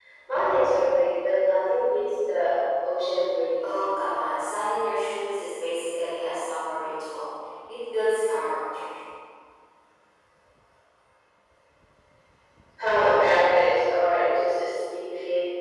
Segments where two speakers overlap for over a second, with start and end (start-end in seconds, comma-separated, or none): none